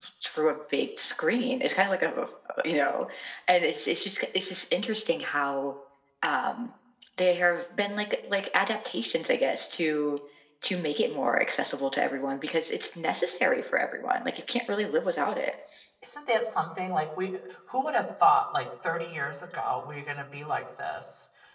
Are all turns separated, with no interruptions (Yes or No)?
Yes